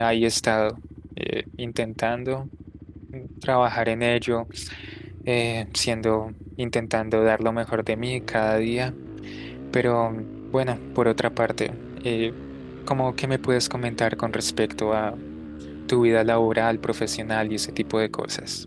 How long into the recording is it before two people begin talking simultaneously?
none

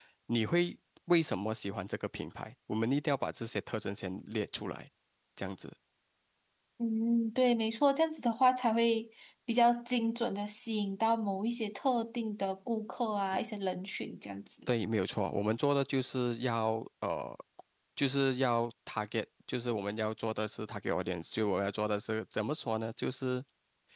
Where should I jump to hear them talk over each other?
none

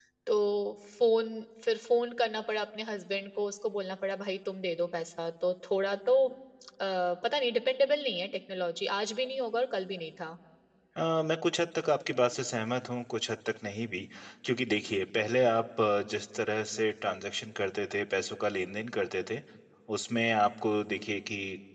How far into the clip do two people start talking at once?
none

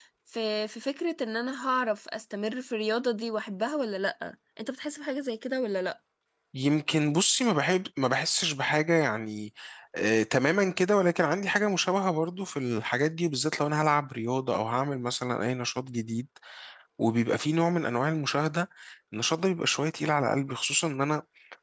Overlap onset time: none

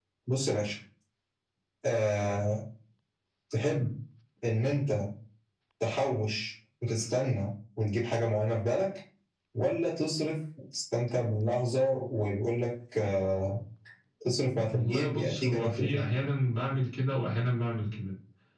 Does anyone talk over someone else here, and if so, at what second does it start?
14.7 s

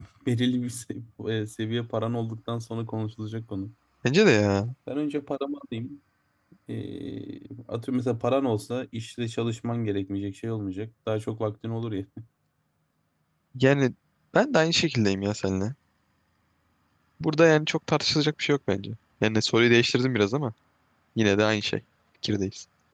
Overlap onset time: none

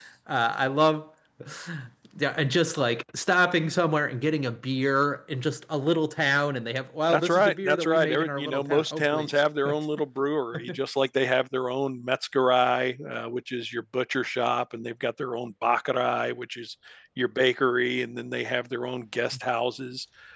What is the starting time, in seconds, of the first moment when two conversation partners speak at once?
7.1 s

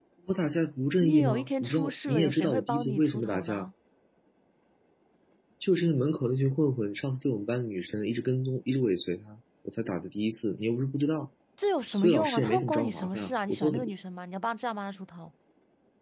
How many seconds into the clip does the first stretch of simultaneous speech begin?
1.0 s

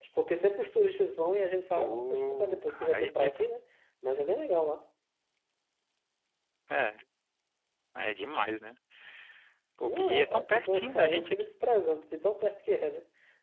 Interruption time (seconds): 1.8 s

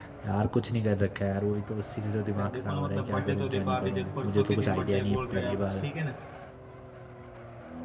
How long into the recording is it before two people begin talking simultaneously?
2.4 s

